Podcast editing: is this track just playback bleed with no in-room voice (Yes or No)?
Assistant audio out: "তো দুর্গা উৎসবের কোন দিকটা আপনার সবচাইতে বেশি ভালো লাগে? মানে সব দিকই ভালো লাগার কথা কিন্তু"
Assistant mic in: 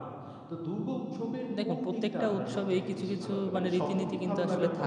No